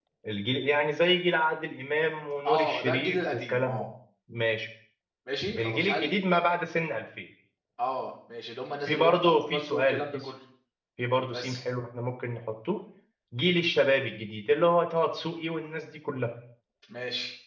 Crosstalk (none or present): present